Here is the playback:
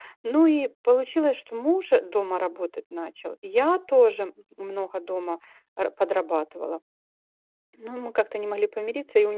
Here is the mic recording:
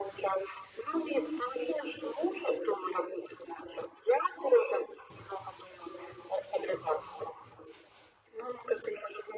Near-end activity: none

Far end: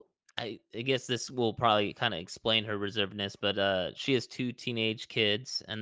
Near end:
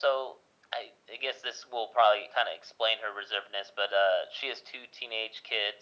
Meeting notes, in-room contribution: none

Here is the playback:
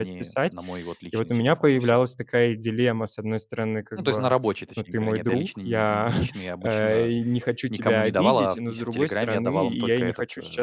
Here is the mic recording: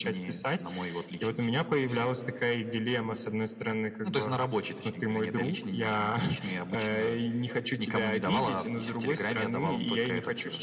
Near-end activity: none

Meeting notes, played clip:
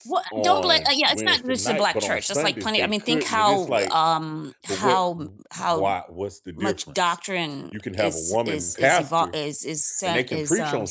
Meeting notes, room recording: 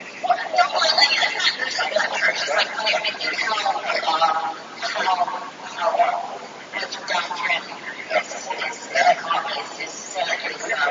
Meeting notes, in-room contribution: none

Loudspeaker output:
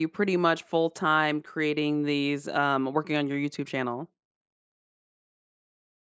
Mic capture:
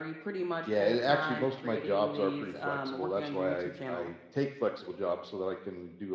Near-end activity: present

